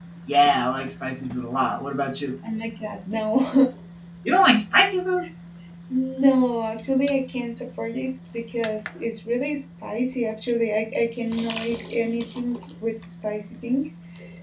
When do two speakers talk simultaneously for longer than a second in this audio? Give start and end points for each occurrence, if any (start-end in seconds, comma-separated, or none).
none